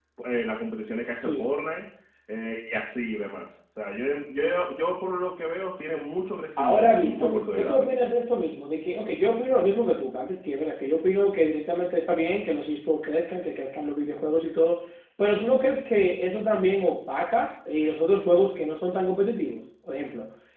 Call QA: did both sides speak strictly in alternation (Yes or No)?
No